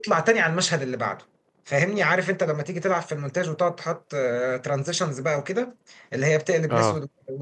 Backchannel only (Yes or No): Yes